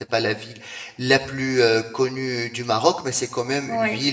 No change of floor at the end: Yes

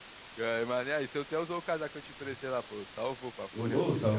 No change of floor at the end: No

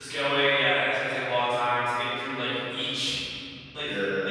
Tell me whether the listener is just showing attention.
Yes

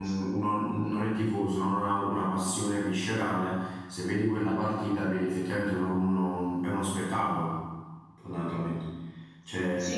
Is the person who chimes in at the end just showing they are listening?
No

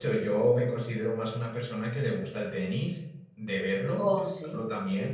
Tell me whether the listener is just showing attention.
Yes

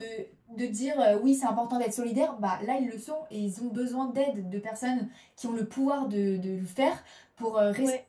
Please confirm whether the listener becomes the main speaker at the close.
No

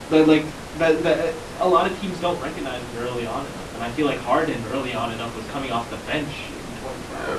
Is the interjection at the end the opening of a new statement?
Yes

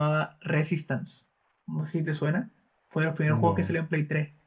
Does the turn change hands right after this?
No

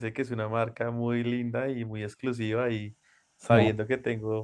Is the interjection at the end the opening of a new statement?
No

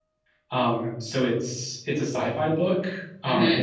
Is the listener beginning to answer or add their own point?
No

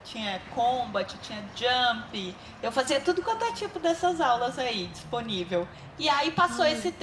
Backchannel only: Yes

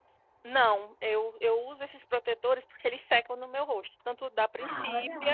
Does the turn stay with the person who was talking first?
Yes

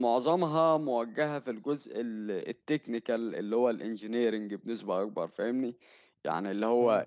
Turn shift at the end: No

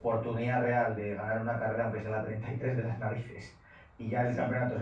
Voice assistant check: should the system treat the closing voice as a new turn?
No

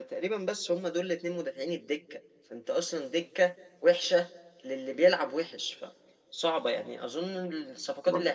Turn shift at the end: No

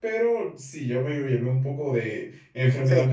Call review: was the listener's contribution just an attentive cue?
No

